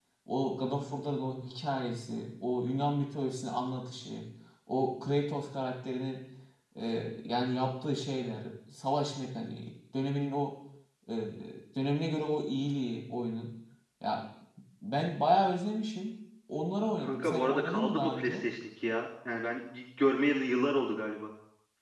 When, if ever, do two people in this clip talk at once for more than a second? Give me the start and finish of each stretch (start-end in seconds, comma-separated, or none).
17.0-18.4